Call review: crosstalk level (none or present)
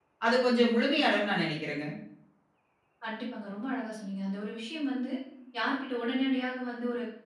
none